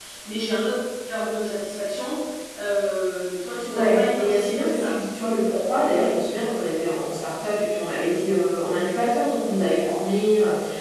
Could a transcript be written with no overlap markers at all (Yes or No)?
No